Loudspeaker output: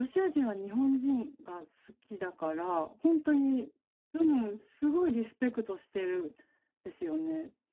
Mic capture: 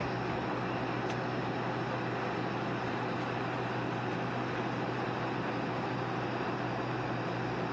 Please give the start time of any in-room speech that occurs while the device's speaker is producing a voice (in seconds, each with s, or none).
none